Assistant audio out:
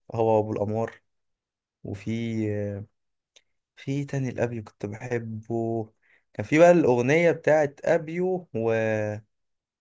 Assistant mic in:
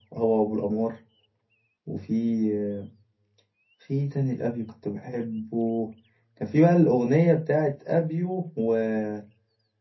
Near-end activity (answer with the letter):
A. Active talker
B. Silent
B